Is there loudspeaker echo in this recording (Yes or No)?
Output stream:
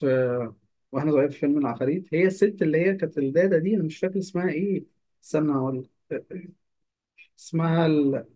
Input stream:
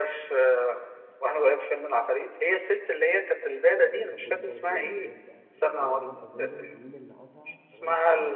Yes